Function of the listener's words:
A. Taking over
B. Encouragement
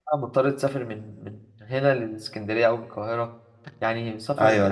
A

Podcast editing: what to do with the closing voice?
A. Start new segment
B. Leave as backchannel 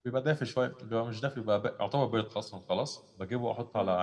B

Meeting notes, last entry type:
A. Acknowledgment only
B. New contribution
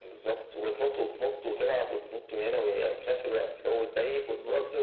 A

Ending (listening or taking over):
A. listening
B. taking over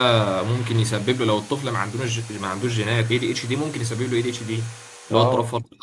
B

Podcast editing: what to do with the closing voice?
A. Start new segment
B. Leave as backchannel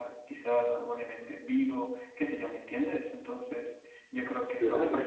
B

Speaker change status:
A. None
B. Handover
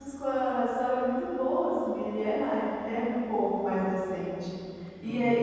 A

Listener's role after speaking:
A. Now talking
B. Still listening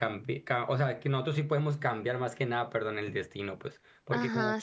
A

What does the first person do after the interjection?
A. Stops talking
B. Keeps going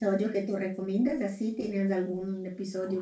A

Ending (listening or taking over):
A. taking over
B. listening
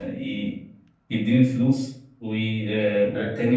B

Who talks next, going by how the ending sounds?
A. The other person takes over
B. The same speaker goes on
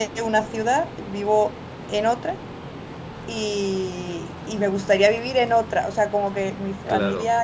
B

